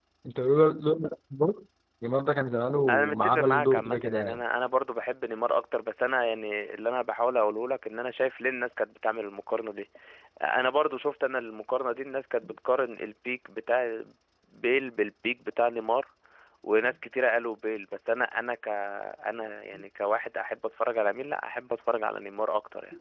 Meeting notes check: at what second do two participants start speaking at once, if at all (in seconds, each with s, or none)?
2.9 s